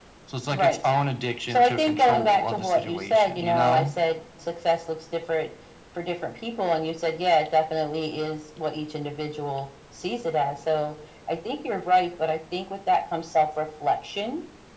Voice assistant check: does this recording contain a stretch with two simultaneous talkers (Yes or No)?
Yes